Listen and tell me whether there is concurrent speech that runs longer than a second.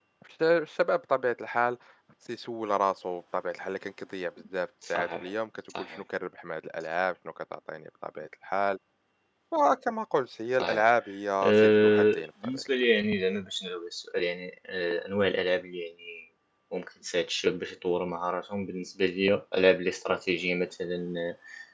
Yes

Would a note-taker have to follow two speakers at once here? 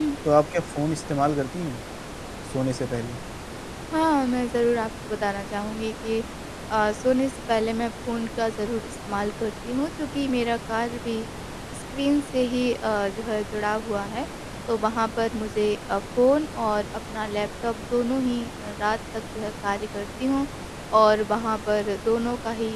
No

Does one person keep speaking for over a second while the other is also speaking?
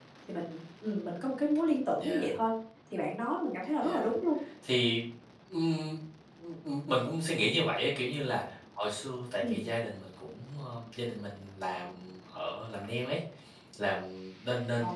No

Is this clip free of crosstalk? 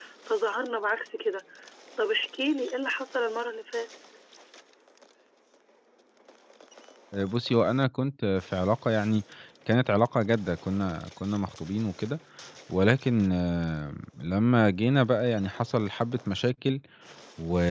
Yes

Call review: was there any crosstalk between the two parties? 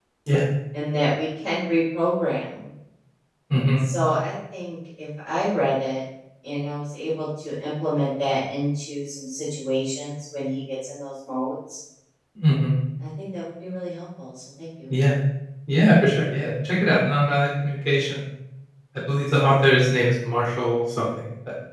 No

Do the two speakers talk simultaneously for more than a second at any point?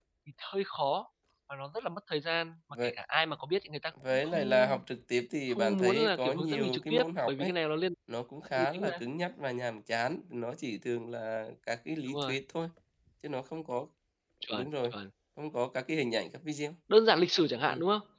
Yes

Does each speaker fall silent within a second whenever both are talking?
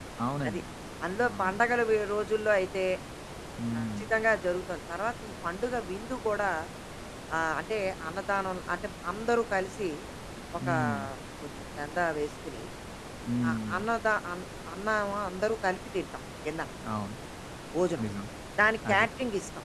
Yes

